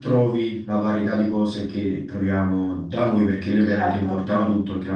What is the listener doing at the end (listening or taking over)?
listening